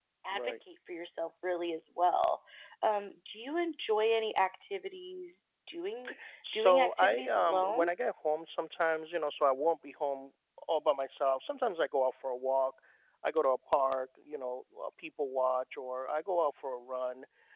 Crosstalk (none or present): present